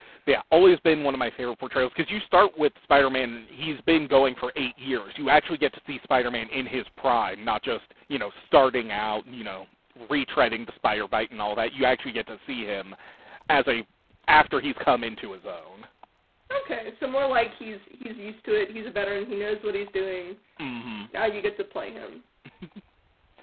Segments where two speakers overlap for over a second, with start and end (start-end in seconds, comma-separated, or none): none